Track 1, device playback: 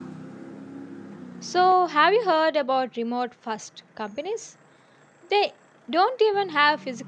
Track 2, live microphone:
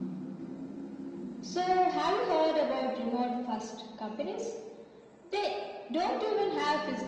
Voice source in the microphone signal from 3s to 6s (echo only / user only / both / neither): echo only